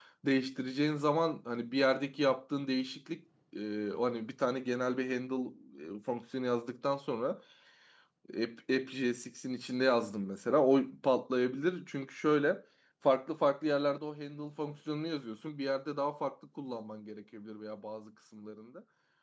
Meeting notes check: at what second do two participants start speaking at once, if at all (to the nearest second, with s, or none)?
none